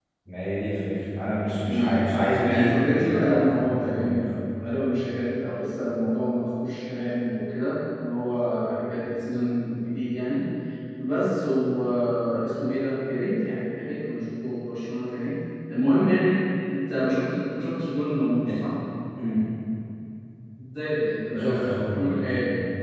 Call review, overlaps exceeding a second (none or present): present